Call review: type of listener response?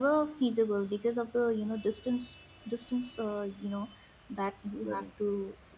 listening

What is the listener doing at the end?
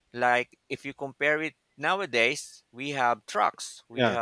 listening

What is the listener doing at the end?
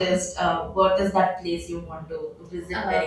taking over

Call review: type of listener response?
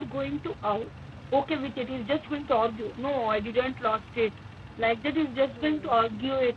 listening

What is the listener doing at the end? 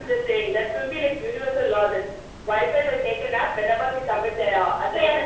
taking over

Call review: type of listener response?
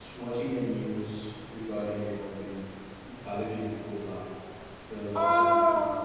taking over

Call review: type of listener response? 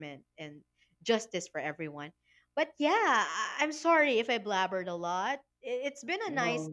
listening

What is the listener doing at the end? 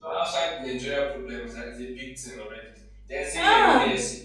listening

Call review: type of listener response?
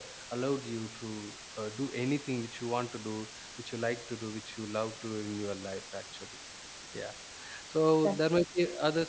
listening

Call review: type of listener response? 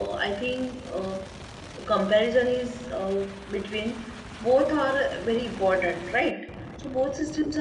listening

